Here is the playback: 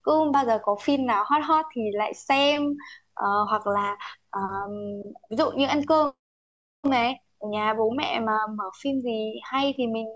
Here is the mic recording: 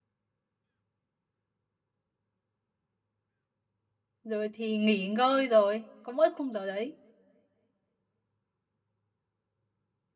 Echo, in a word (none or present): none